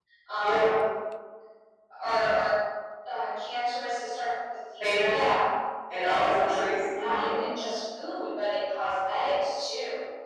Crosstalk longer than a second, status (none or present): present